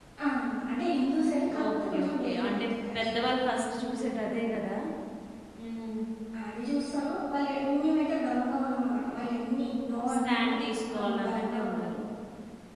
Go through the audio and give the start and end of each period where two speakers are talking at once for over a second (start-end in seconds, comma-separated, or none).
1.7-3.1, 10.1-12.0